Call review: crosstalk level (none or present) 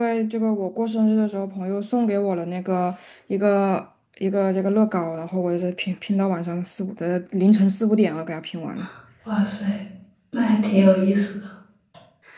none